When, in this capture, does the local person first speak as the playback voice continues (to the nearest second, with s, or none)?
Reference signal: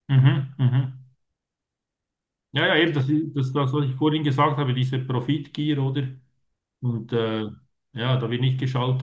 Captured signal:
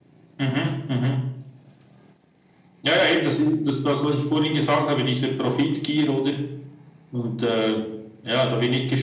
none